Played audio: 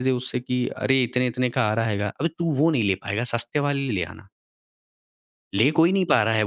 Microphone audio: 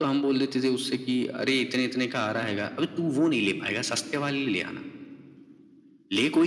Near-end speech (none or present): none